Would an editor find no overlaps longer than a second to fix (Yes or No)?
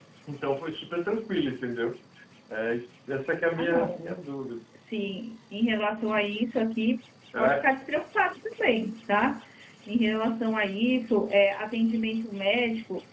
Yes